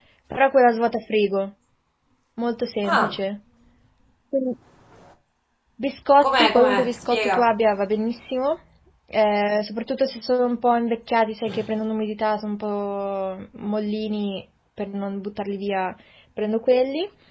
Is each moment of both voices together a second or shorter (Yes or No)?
No